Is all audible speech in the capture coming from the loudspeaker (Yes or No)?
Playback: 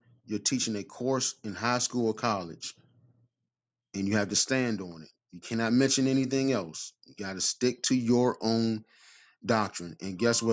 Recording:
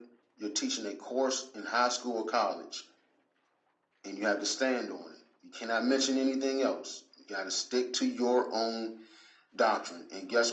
Yes